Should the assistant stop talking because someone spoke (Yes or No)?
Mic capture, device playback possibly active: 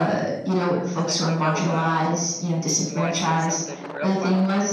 Yes